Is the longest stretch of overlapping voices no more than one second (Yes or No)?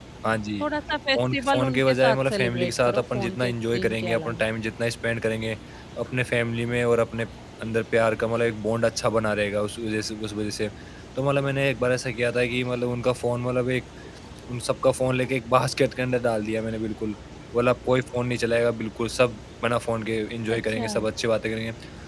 No